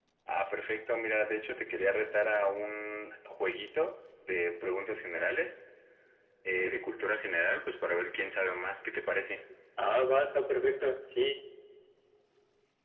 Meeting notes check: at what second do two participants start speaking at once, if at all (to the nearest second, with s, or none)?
none